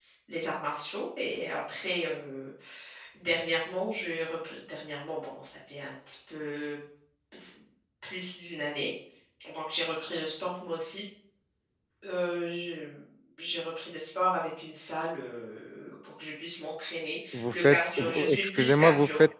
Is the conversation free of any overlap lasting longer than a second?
No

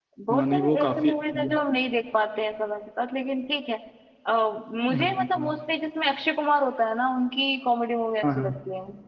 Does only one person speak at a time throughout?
No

